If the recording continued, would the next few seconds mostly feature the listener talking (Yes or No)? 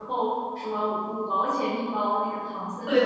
Yes